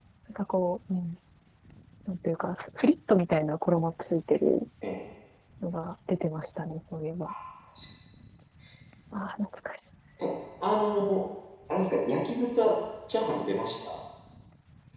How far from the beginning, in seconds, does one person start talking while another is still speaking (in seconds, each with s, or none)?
none